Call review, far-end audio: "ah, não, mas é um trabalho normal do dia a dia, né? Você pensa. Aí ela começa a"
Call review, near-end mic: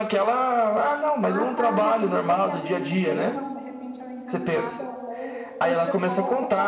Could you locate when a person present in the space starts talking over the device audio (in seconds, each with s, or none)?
1.2 s